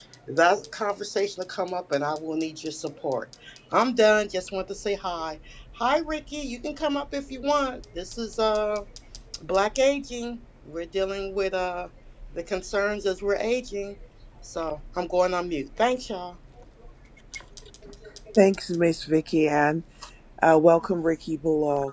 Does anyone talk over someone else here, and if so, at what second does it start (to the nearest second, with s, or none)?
none